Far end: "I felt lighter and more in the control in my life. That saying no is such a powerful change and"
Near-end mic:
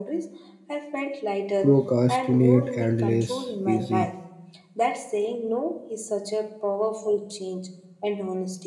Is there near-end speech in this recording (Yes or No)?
Yes